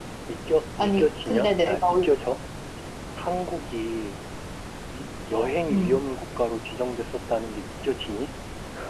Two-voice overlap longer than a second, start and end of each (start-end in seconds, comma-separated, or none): 0.8-2.1